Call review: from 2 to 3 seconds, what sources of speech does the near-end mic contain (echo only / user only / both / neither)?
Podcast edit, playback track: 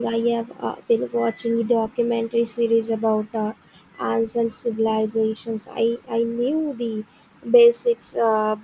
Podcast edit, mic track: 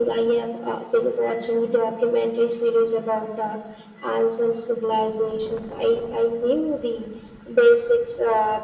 echo only